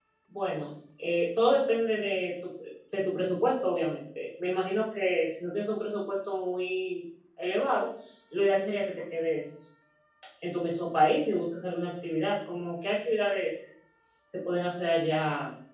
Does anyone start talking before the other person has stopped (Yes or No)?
No